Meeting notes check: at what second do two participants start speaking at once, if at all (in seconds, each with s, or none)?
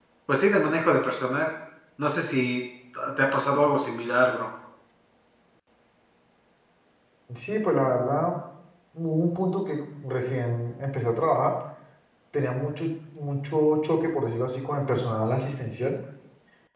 none